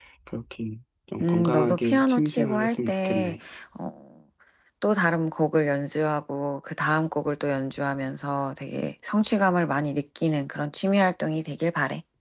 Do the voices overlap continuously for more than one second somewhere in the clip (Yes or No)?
Yes